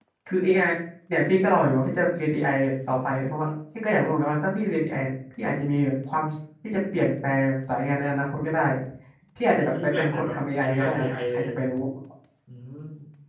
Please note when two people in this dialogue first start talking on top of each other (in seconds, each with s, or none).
9.5 s